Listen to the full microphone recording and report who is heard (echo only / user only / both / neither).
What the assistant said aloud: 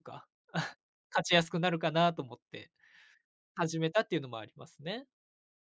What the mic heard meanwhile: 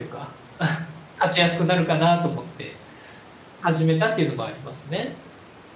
echo only